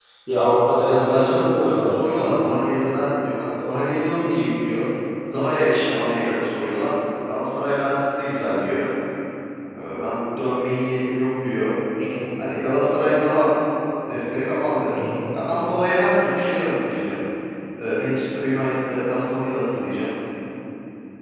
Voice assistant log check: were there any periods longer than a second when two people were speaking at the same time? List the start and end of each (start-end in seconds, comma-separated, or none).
0.8-2.4